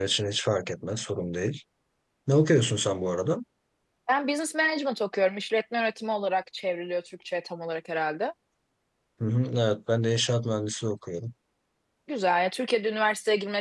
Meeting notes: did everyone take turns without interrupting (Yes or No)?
Yes